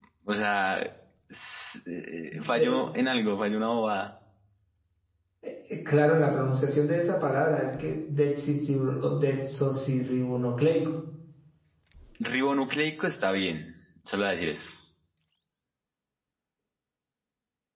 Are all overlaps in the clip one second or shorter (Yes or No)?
Yes